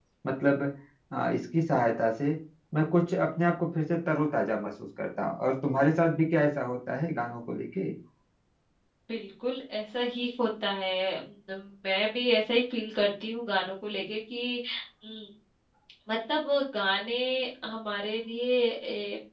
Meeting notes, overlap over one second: none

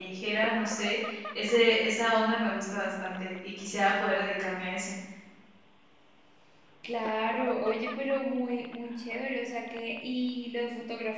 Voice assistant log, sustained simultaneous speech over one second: none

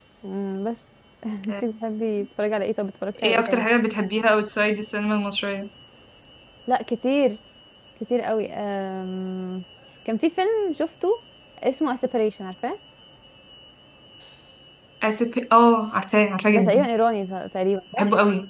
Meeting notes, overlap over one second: none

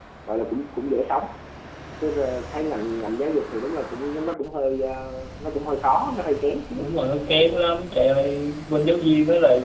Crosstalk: none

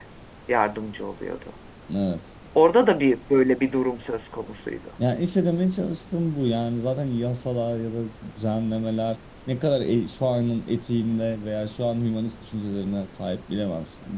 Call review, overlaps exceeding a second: none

